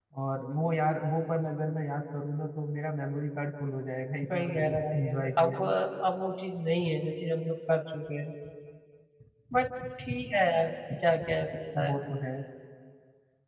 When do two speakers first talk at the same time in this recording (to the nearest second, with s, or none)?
4 s